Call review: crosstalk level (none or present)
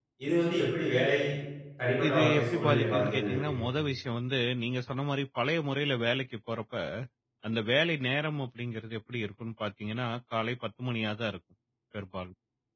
present